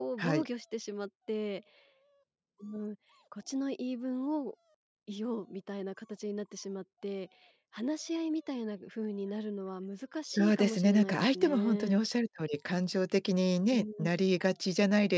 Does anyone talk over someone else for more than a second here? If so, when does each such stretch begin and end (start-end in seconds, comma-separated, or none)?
10.3-12.0